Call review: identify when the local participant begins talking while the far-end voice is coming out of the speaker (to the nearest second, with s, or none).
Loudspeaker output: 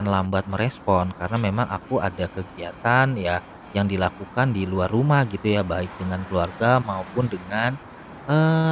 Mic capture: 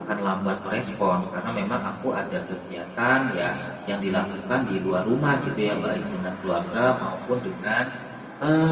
none